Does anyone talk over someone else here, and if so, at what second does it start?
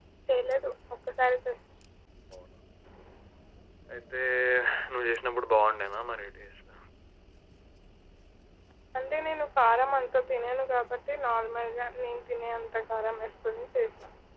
none

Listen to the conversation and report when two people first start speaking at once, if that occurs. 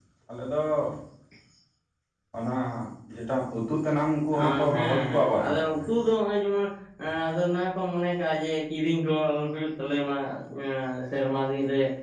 4.3 s

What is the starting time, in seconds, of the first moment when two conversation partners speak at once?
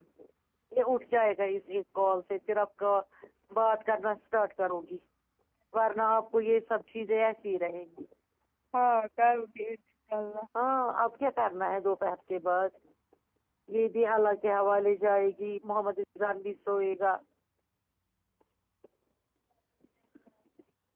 none

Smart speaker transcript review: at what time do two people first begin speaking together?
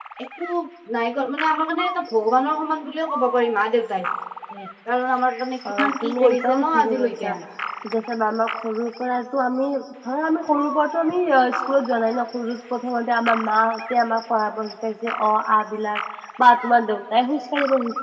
5.6 s

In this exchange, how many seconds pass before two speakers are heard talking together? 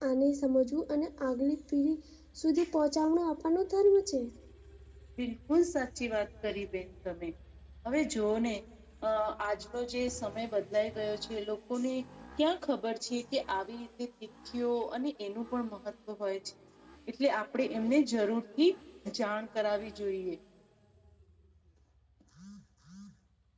none

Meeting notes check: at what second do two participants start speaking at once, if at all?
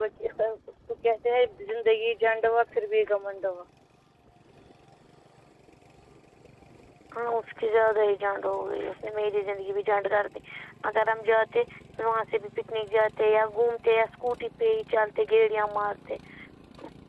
none

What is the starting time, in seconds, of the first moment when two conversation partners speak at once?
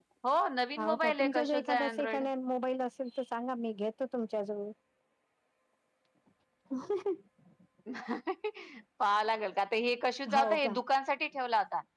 0.8 s

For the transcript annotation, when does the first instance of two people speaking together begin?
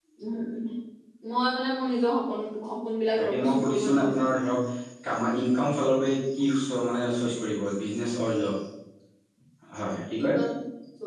3.2 s

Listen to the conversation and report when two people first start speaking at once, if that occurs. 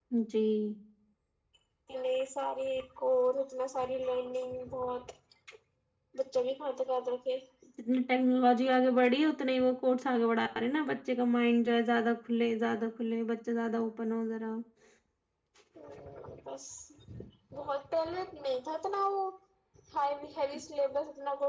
none

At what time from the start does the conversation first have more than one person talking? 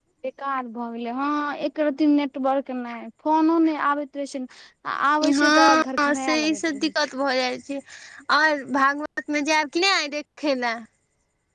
5.3 s

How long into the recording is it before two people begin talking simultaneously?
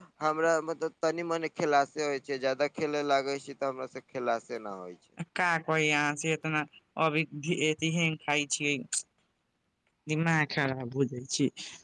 none

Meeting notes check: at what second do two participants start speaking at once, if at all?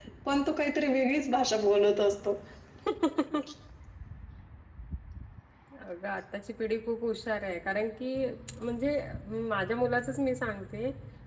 none

